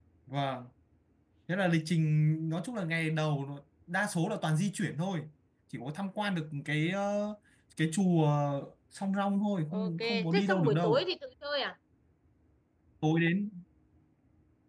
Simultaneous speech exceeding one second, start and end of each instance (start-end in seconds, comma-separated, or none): 9.7-11.0